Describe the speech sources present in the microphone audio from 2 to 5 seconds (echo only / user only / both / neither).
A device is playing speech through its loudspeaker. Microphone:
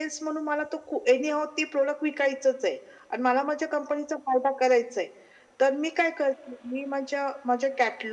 echo only